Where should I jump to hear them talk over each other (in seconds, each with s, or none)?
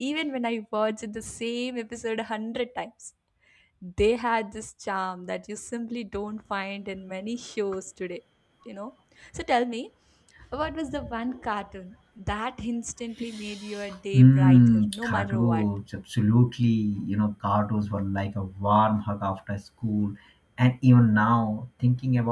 14.1 s